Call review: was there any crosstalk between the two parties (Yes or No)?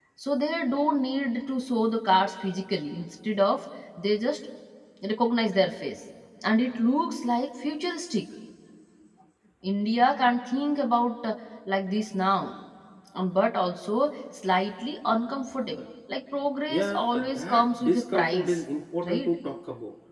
Yes